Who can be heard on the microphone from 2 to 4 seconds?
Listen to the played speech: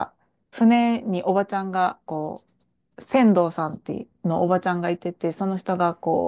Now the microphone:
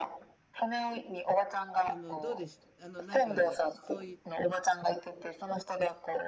both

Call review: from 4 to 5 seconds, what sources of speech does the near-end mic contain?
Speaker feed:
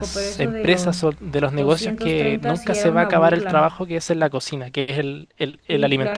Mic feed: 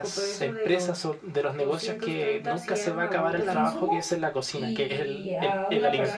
both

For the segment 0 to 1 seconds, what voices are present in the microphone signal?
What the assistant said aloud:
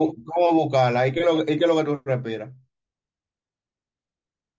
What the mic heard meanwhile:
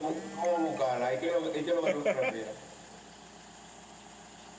echo only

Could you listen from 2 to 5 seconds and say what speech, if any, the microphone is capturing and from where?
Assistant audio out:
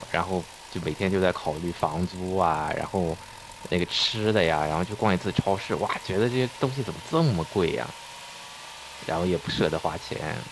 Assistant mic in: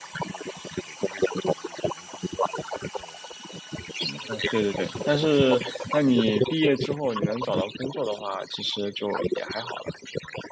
both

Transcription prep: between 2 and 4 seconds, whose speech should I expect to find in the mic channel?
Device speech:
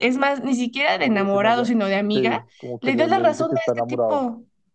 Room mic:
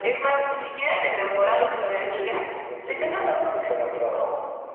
echo only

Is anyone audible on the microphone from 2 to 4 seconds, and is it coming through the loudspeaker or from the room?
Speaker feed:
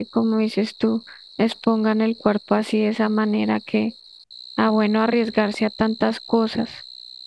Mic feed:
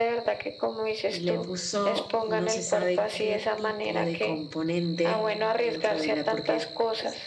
both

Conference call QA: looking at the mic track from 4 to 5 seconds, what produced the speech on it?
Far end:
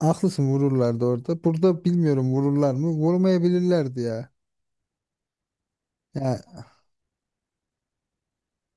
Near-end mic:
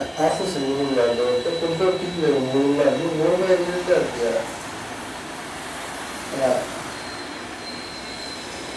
echo only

